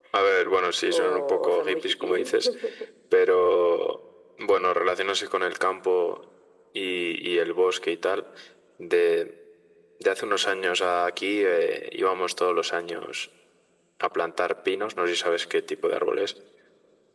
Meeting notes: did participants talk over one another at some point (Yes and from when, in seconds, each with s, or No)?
Yes, from 0.8 s